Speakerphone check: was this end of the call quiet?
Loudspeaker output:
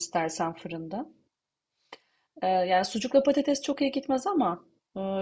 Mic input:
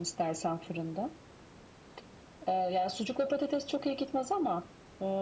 Yes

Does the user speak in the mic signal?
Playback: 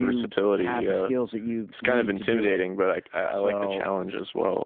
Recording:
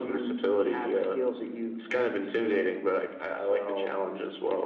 No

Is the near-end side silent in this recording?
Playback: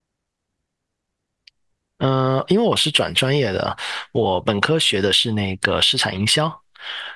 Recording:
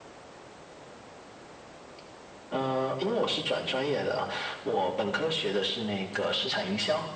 Yes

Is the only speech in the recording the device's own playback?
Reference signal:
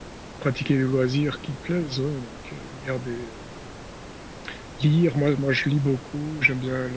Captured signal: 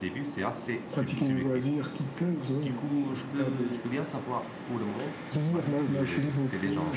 No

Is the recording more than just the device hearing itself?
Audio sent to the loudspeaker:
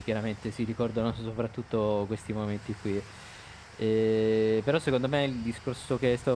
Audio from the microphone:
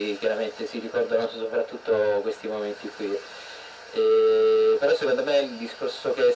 No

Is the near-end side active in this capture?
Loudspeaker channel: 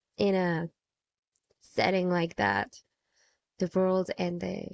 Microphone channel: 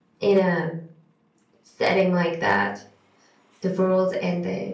No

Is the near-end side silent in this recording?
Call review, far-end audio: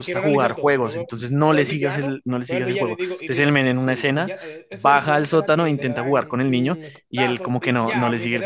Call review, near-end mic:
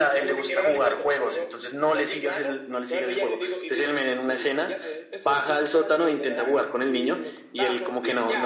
Yes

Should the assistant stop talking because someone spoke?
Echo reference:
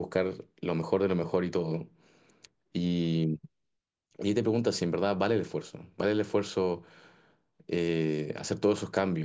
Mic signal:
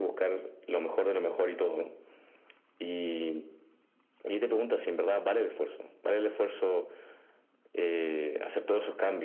No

